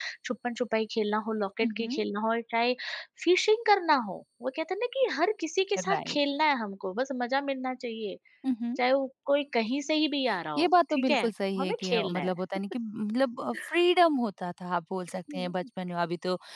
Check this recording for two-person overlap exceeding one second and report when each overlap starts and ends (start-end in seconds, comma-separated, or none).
10.6-12.4